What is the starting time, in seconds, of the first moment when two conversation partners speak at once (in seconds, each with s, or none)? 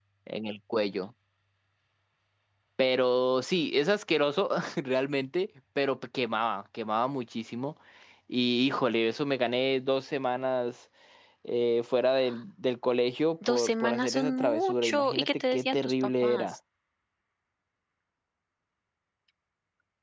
13.4 s